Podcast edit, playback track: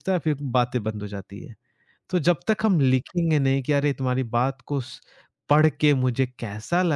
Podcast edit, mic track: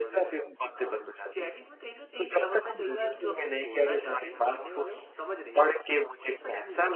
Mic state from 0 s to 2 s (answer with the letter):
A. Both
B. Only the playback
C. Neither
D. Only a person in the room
A